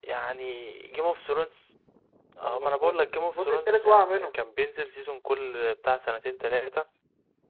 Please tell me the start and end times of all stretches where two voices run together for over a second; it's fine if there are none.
2.4-4.3

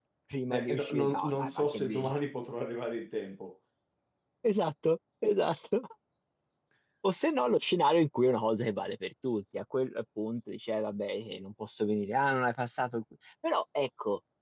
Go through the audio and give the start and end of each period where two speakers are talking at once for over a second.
0.5-2.1

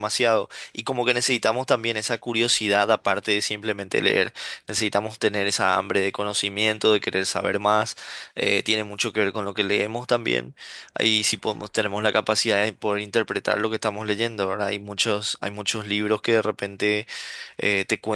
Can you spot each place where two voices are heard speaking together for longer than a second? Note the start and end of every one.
none

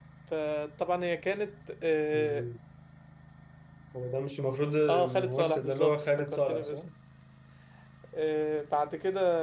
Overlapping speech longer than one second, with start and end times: 4.9-6.8

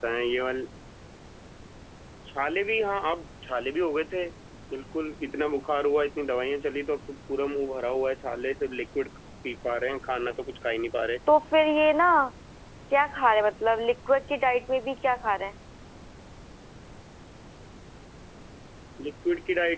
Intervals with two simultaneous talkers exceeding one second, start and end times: none

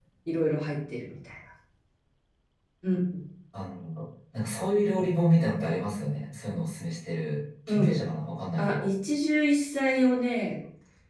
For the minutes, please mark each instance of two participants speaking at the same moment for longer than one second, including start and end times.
none

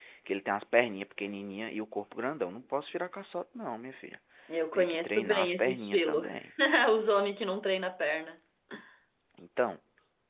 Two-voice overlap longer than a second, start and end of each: 4.7-6.3

